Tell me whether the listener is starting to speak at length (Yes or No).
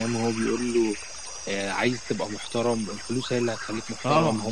Yes